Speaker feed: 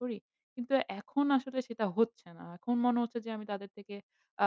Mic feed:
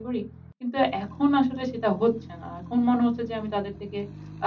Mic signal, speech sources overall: echo only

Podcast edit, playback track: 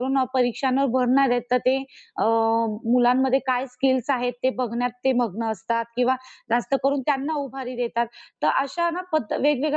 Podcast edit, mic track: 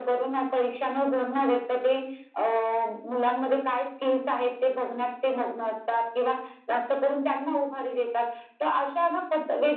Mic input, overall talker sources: echo only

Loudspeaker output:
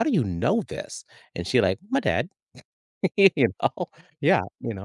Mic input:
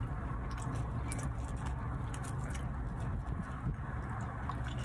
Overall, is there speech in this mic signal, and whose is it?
neither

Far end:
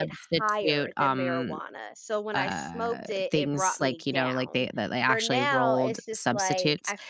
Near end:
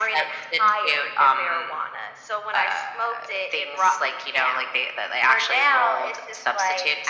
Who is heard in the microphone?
echo only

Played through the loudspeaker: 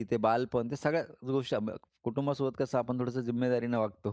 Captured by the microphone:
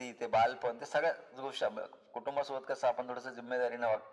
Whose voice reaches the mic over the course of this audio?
echo only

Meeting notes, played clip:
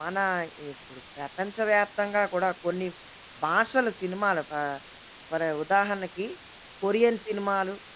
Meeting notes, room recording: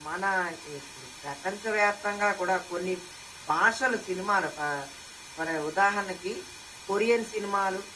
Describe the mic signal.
echo only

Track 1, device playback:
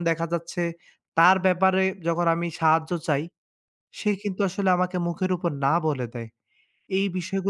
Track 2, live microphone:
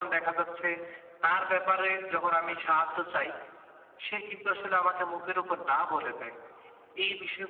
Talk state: echo only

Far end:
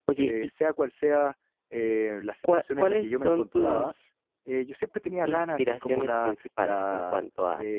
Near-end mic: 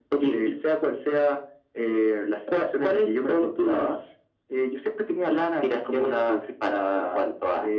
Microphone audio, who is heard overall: echo only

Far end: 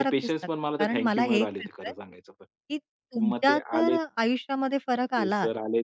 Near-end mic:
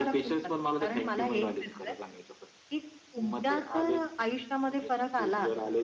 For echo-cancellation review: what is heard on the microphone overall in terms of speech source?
both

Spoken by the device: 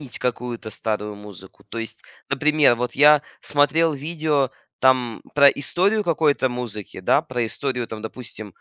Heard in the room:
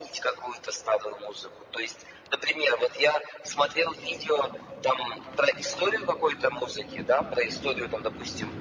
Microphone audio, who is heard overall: echo only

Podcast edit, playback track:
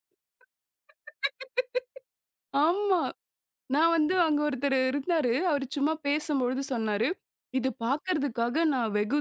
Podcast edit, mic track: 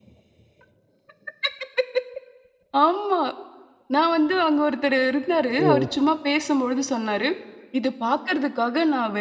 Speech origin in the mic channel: both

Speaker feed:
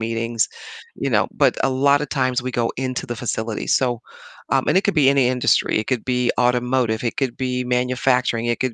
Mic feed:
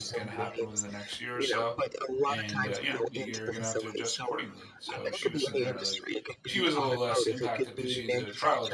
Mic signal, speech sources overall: both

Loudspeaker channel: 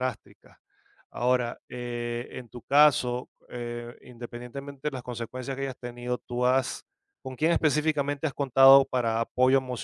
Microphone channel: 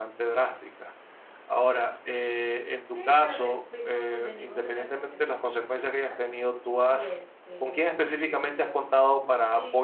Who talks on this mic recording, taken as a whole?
both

